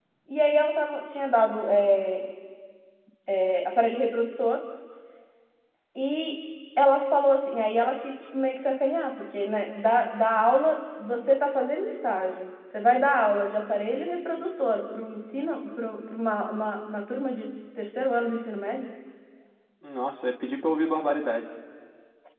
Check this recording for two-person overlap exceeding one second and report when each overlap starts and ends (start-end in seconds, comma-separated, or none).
none